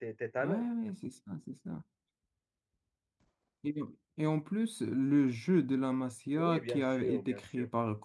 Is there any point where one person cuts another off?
Yes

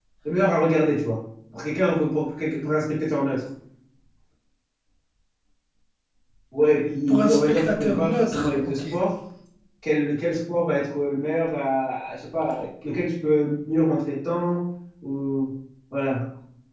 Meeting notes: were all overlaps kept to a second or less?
No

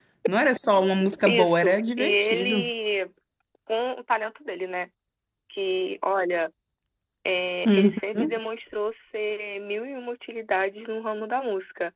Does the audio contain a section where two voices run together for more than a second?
Yes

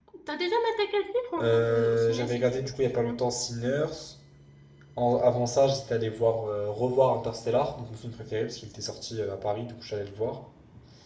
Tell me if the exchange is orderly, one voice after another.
No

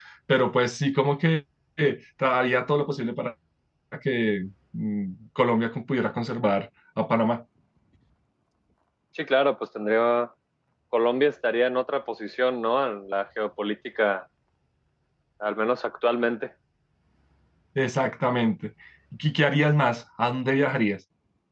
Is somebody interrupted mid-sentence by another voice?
No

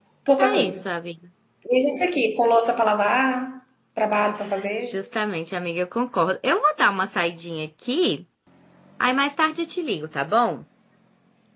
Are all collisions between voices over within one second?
Yes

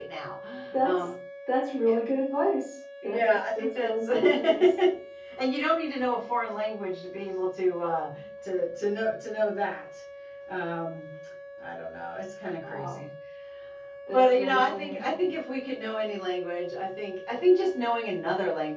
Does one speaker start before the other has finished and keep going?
Yes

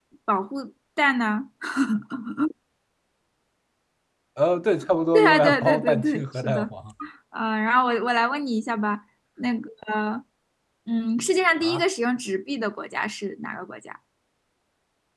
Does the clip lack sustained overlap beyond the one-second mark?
No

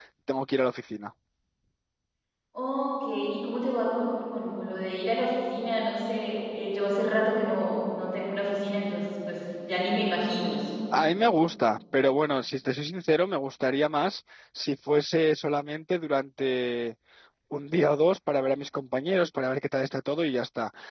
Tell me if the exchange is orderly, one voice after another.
Yes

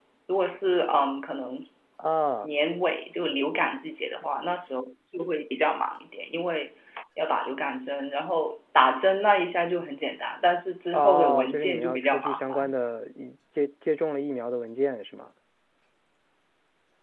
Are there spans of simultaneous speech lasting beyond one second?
Yes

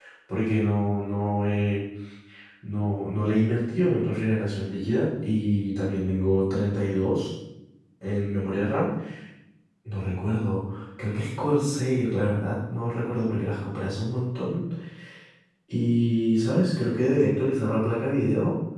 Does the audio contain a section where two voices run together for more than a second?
No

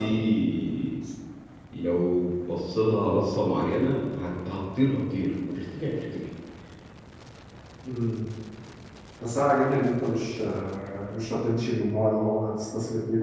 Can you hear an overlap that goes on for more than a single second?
No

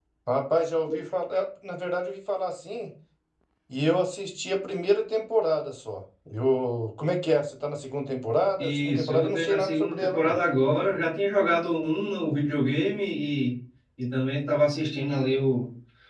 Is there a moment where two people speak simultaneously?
Yes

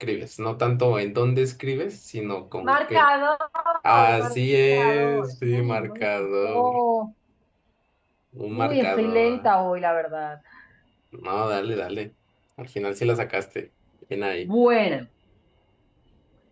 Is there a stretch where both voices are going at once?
Yes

